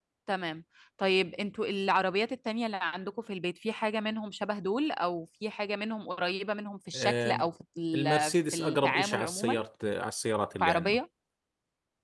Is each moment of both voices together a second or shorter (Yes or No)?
No